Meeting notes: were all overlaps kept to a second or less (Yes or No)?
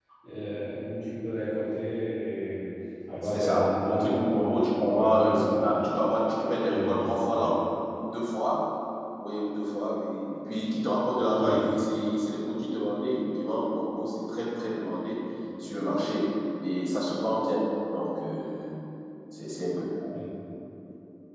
No